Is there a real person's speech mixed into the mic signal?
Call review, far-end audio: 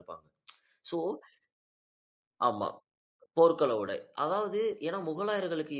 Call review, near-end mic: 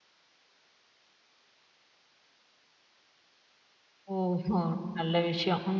Yes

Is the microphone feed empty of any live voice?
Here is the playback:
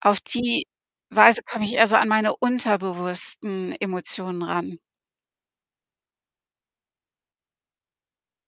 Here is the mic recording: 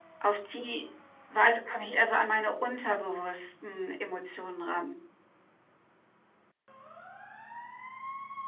Yes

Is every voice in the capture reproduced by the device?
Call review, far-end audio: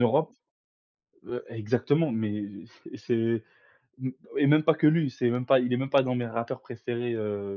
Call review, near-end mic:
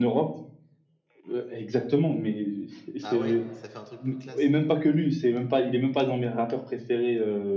No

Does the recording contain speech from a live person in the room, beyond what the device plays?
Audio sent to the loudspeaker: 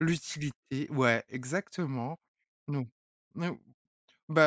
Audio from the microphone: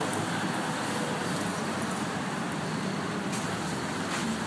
No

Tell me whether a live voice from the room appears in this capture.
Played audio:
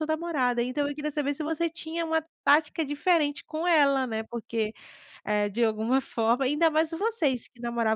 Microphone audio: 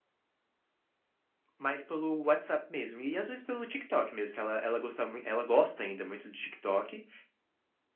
Yes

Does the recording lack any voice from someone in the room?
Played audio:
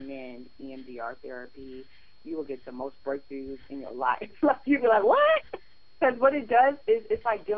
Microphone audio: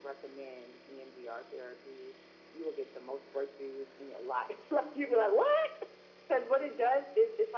Yes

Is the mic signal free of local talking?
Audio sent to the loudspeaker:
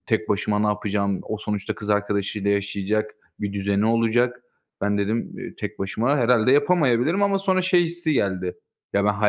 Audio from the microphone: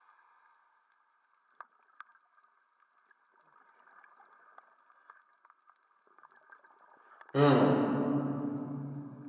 No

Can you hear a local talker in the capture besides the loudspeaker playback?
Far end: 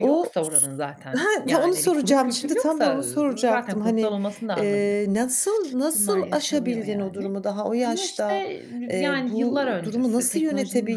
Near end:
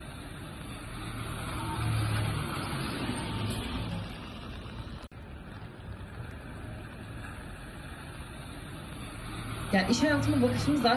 Yes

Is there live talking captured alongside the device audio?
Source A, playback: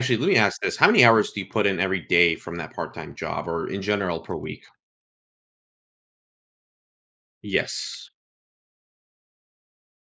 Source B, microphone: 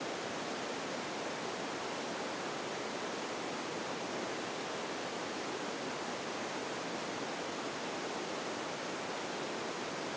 No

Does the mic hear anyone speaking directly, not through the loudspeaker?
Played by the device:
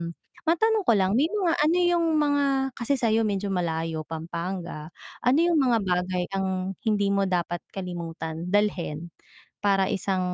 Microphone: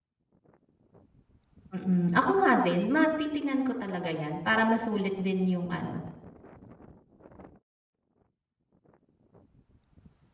Yes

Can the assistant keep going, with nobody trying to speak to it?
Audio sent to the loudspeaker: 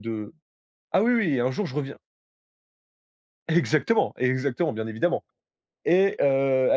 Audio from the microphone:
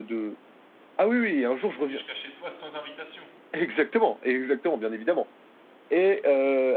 No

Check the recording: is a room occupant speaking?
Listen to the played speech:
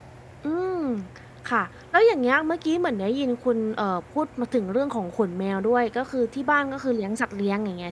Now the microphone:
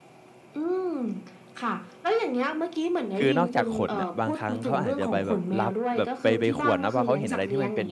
Yes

